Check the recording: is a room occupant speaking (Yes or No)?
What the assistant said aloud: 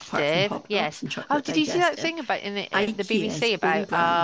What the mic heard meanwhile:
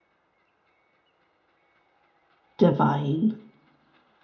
Yes